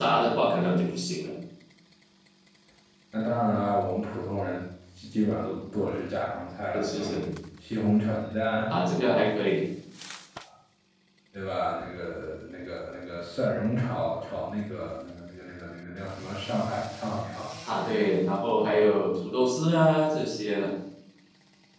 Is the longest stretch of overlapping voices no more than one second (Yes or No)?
Yes